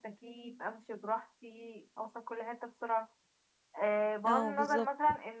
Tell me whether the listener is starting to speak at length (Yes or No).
No